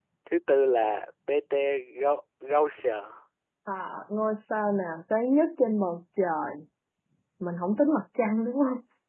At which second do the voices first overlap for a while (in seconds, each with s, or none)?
none